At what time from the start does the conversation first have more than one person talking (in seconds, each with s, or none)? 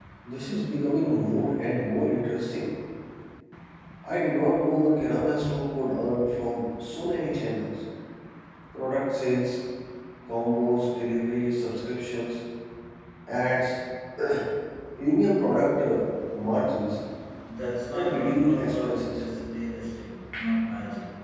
17.9 s